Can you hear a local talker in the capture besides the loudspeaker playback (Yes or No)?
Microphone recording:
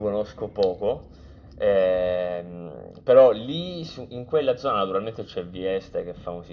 No